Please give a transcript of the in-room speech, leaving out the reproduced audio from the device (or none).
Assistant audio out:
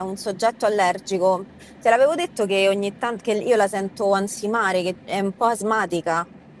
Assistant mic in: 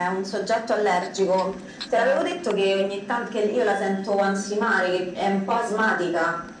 Madre mia.